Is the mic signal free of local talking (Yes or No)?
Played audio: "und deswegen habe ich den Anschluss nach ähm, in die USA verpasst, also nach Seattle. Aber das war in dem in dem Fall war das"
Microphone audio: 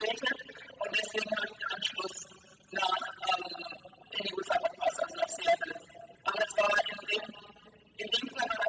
Yes